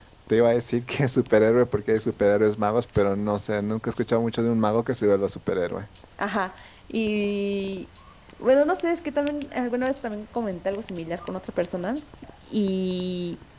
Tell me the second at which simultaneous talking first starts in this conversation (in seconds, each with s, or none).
none